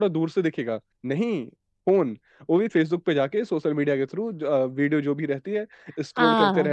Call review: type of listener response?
taking over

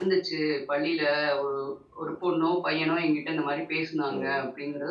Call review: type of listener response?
taking over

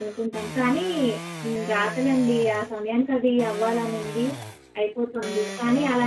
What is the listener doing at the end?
listening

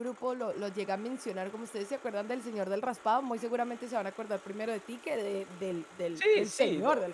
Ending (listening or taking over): taking over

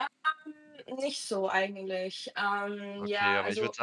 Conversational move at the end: taking over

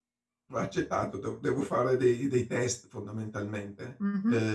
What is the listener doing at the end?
taking over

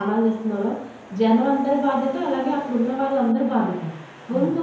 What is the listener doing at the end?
listening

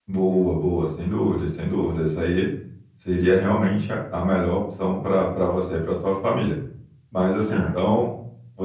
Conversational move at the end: listening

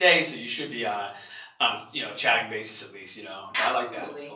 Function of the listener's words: taking over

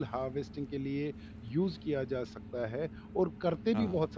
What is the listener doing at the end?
listening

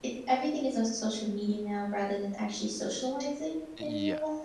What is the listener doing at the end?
taking over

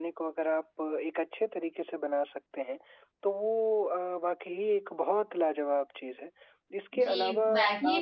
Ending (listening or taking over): taking over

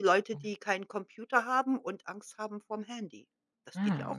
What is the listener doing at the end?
taking over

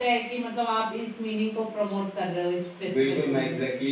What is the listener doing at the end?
taking over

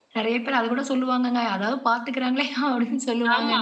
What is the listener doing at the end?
taking over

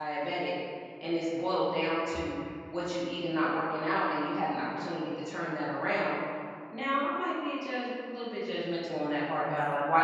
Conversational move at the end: listening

